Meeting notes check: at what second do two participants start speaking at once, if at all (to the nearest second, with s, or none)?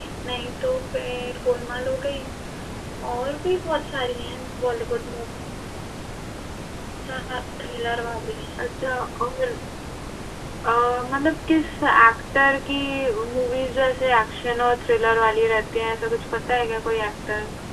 none